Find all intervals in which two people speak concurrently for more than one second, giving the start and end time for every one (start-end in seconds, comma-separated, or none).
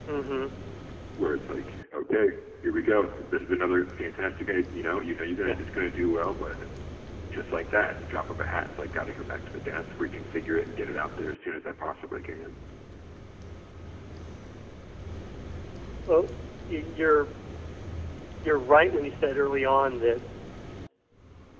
none